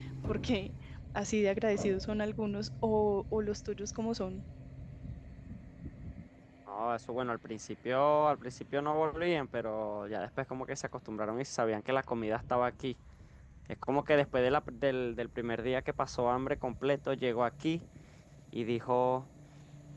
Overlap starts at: none

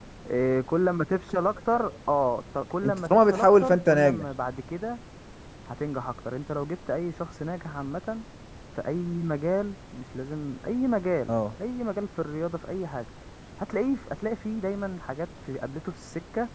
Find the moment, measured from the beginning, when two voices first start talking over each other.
2.8 s

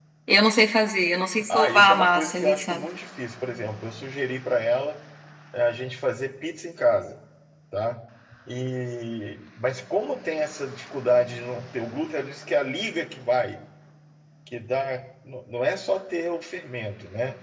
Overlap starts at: 1.5 s

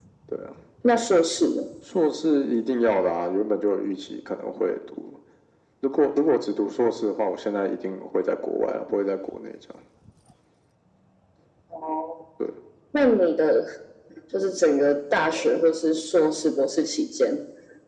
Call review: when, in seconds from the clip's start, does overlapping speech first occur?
none

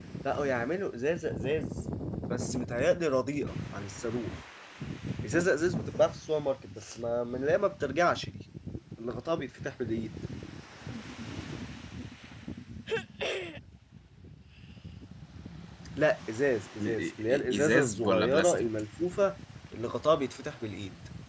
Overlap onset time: 16.8 s

